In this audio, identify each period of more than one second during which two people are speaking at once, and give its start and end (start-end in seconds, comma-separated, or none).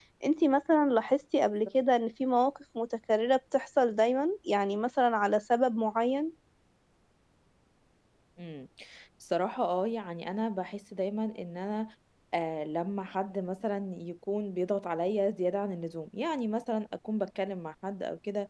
none